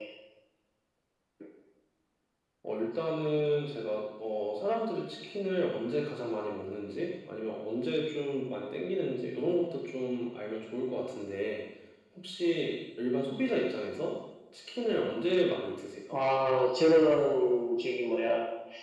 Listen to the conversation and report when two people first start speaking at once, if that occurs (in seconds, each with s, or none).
none